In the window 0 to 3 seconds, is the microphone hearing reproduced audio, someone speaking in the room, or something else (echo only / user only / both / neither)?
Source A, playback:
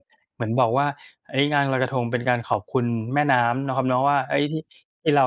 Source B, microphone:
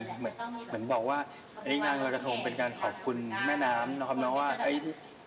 both